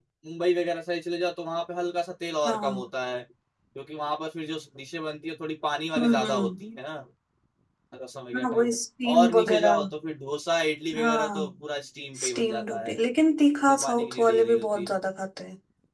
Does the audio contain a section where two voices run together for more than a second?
Yes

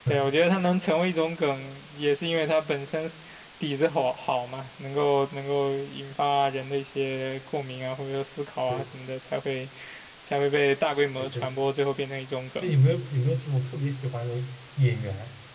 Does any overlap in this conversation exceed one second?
No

